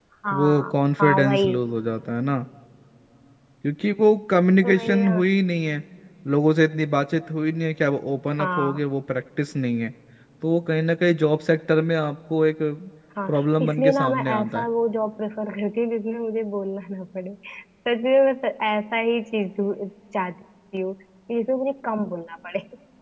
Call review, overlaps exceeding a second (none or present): present